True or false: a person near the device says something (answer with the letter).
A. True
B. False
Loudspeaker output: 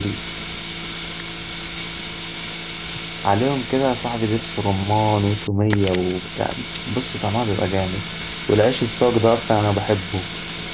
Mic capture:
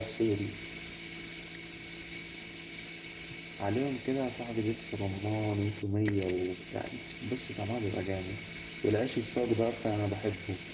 B